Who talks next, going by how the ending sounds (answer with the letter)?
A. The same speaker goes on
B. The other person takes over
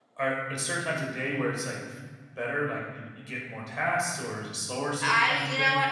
B